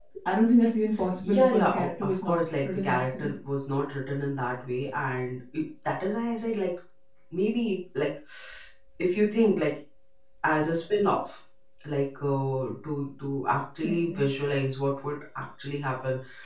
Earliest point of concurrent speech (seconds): 1.2 s

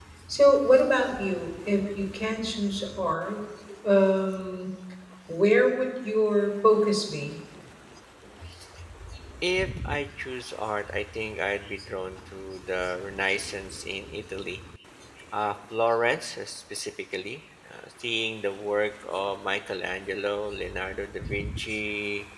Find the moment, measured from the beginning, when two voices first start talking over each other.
none

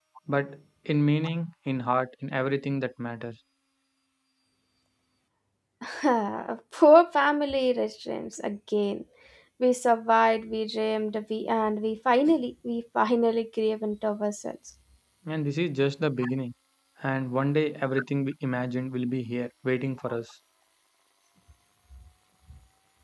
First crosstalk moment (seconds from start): none

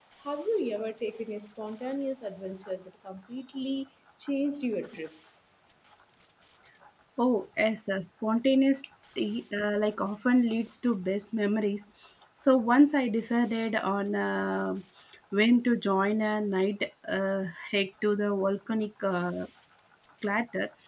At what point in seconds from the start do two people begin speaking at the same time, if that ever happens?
none

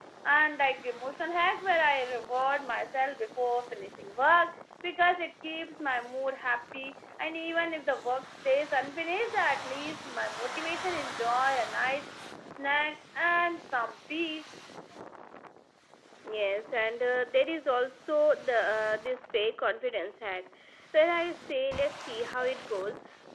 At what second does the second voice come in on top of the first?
none

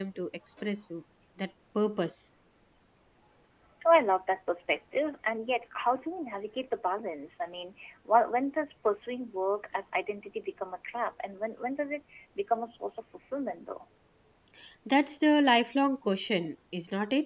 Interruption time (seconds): none

